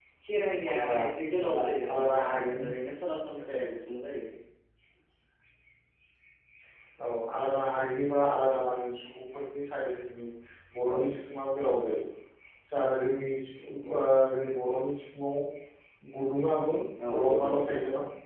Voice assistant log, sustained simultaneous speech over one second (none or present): present